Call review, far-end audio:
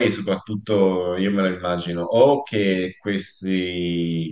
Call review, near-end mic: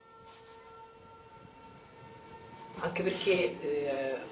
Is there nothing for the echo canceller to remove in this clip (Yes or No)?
Yes